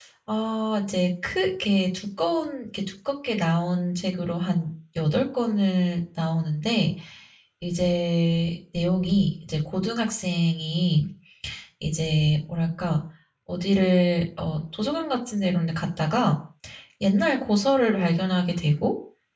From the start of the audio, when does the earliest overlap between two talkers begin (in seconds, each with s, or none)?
none